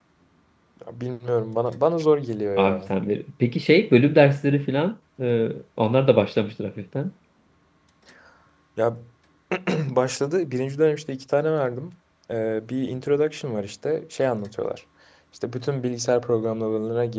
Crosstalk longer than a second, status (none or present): none